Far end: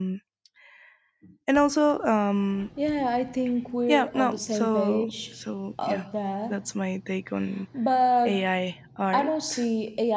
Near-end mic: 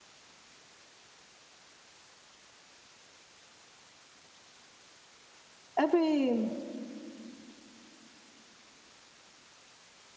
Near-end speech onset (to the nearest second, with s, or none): 6 s